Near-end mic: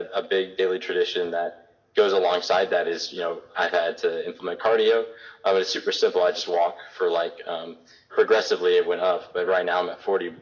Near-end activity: none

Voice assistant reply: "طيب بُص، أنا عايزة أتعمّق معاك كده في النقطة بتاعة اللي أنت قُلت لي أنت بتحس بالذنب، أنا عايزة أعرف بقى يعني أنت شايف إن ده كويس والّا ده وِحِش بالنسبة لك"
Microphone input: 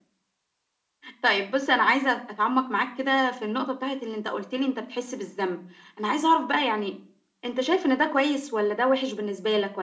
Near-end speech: none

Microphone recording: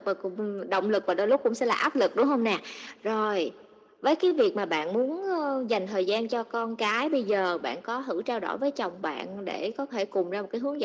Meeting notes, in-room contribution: none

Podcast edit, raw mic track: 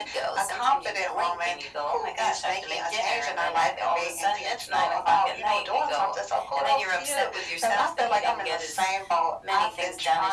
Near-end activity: none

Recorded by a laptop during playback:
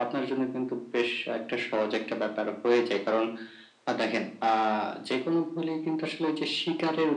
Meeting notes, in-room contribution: none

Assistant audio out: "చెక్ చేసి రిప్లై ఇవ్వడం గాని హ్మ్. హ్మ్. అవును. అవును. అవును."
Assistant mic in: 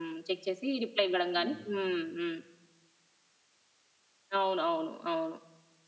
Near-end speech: present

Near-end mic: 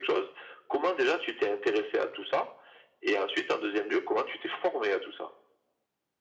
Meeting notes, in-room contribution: none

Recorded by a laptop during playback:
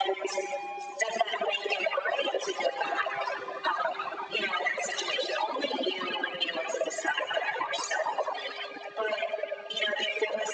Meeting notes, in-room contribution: none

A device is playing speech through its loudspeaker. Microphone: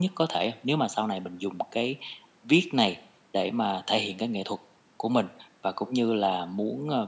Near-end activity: none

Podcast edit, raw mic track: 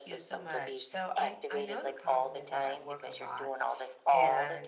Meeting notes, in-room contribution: present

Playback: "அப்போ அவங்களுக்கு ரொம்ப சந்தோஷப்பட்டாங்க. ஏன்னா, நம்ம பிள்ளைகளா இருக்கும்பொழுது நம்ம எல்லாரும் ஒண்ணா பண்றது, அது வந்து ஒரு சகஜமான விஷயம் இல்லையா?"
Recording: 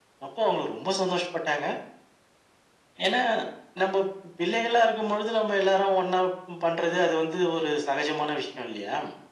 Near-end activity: none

